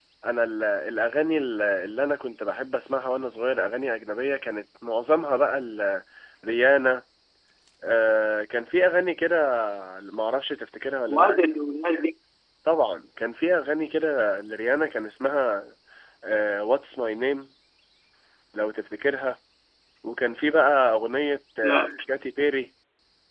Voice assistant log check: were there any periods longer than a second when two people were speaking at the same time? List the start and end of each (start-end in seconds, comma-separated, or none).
none